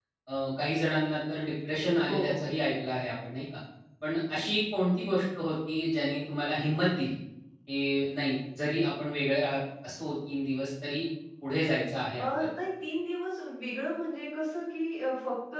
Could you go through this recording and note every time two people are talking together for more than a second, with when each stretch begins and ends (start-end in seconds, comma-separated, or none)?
none